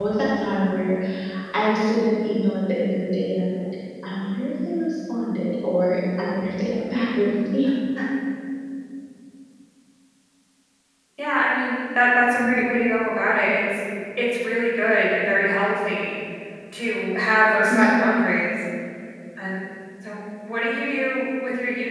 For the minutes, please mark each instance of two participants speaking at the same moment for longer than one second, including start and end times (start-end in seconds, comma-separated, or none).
none